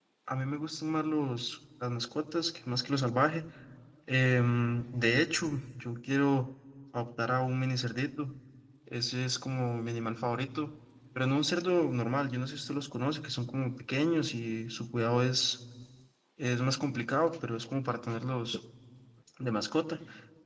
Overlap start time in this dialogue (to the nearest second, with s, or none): none